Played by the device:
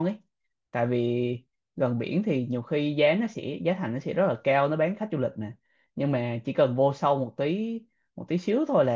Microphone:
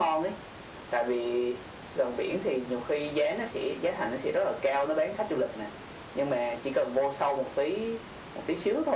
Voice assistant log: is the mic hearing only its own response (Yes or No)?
Yes